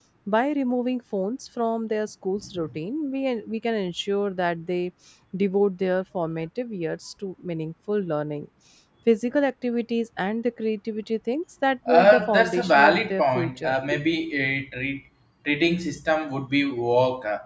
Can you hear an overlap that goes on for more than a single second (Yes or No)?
Yes